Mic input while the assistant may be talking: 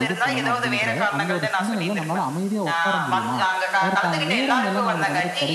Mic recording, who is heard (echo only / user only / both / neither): both